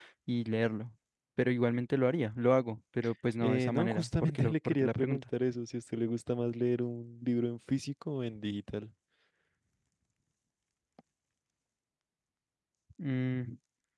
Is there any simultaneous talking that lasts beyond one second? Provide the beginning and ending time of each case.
3.4-5.2

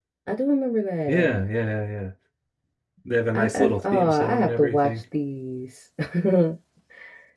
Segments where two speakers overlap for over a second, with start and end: 3.4-5.0

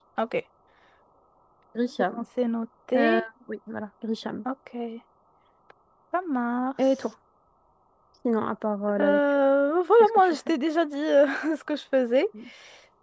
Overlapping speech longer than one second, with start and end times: none

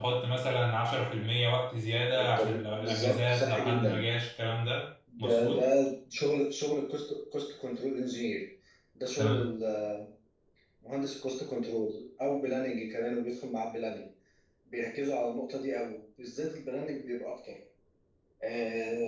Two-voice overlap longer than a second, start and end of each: 2.1-4.0

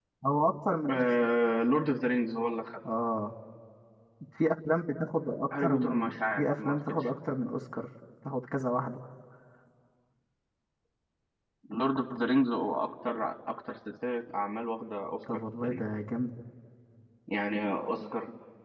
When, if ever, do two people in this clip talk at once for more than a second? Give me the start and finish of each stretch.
5.5-7.1

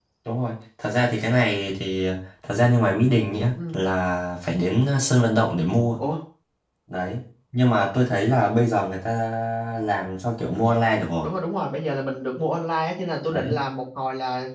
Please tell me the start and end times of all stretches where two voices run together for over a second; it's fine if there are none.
none

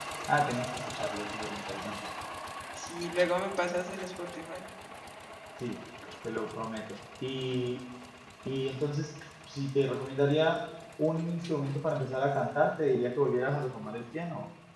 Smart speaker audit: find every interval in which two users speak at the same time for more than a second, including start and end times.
none

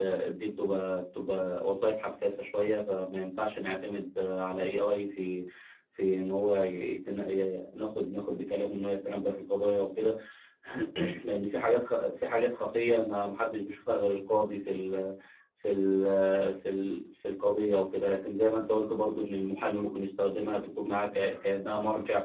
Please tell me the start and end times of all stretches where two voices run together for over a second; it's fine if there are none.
none

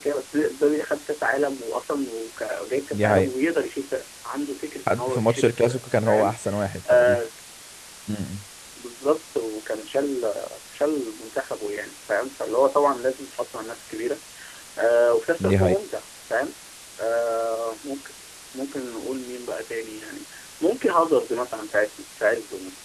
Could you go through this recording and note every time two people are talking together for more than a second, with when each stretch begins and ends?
4.9-6.3

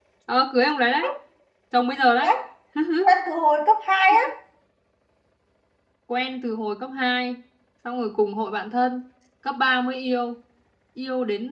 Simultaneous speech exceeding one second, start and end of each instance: none

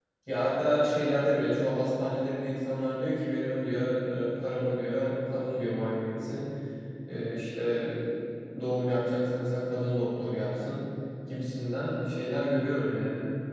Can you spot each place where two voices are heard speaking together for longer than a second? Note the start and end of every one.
none

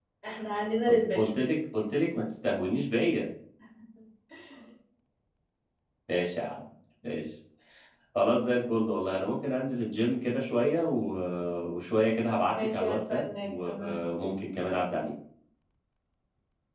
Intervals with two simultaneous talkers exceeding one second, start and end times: 12.6-14.0

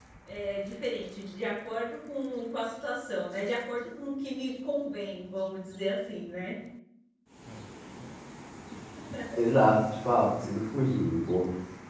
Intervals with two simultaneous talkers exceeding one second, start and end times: none

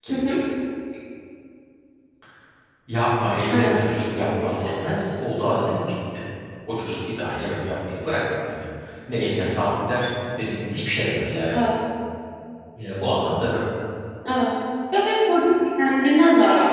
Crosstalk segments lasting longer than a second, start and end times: 3.5-4.8

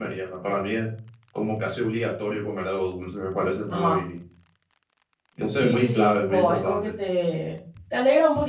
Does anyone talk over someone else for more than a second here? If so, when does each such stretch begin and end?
5.5-6.9

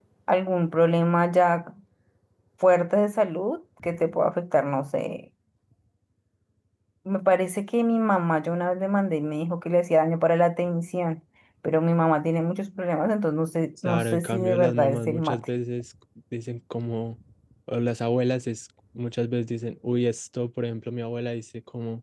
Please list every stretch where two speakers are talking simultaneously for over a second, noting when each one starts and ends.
13.8-15.4

